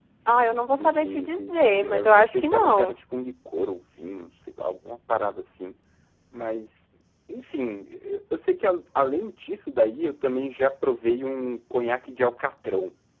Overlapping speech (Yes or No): Yes